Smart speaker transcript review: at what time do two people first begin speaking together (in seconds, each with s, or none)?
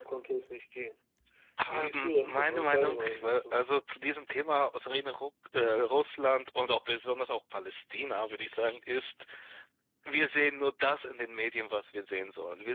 1.7 s